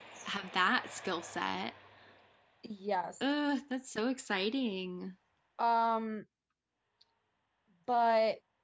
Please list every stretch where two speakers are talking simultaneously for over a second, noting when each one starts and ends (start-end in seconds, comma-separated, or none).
none